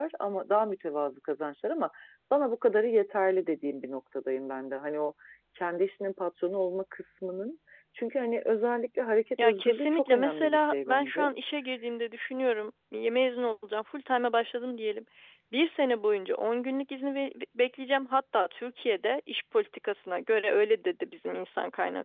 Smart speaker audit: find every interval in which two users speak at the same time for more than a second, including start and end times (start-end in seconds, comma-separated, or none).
9.4-11.3